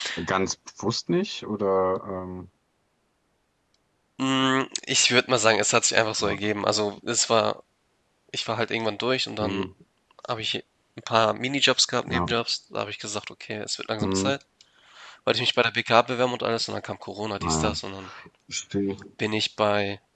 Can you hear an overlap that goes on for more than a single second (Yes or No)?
No